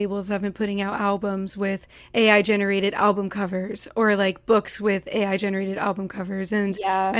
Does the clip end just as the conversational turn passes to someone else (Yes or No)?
No